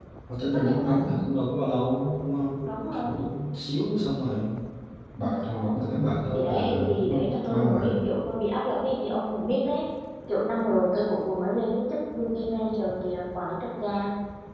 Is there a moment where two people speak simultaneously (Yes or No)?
Yes